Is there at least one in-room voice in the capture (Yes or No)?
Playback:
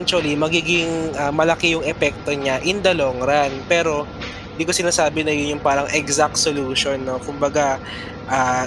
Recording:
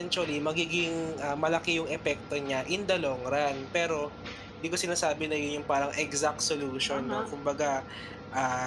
Yes